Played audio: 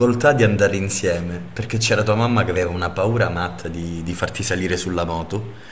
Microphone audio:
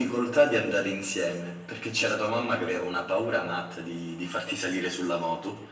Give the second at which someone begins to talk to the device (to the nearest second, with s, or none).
none